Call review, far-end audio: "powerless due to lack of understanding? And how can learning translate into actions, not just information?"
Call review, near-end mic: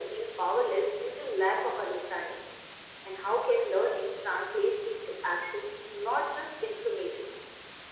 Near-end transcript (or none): none